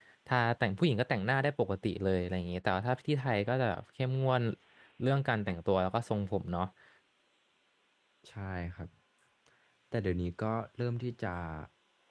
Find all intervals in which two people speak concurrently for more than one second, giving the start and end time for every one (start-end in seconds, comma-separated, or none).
none